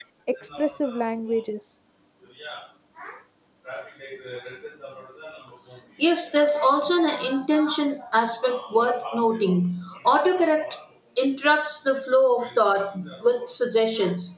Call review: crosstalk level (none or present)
none